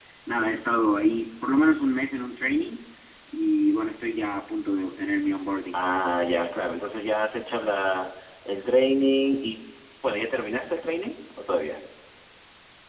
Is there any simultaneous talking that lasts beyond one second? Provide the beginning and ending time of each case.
none

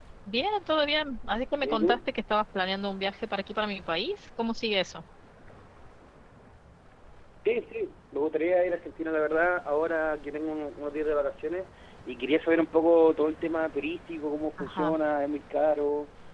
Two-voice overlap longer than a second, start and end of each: none

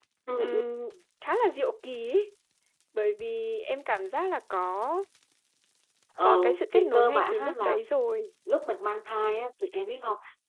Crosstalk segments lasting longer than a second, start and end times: 6.2-7.8

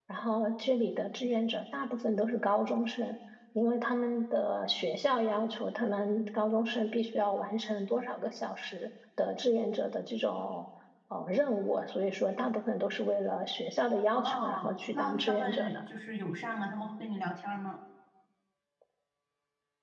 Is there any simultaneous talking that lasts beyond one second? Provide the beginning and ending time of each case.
14.1-15.7

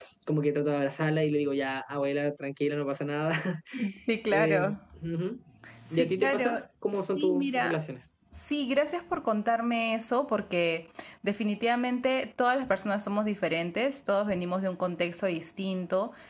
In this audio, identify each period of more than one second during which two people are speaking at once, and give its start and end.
5.9-7.8

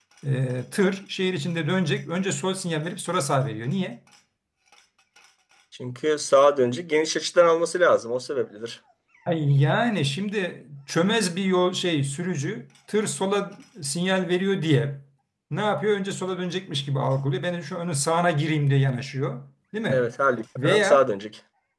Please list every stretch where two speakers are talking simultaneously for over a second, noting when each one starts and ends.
none

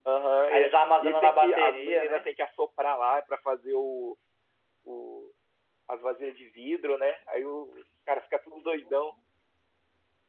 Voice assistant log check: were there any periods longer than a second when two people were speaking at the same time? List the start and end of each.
0.5-2.3

